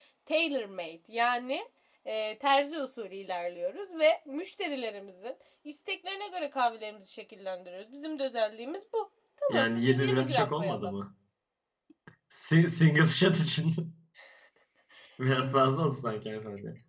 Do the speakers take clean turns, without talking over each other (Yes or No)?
No